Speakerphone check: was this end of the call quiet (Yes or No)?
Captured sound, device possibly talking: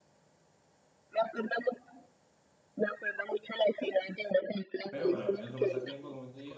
No